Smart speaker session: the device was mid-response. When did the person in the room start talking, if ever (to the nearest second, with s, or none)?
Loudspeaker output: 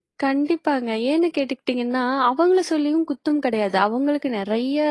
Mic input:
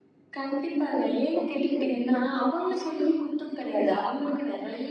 none